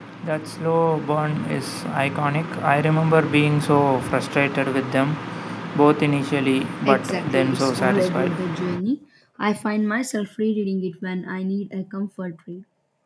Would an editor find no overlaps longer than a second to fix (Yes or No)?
No